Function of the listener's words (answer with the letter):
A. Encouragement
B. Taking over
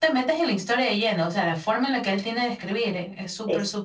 B